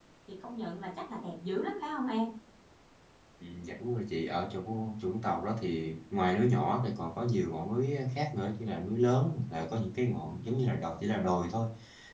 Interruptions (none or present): none